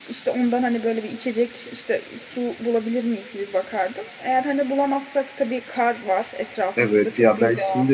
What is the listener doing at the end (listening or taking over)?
taking over